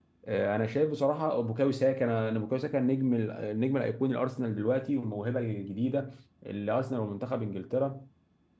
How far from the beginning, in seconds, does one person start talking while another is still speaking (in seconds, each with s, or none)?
none